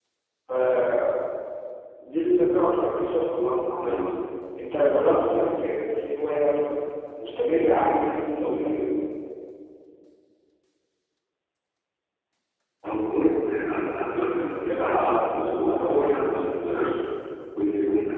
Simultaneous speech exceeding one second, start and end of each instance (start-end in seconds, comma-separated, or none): 14.5-16.9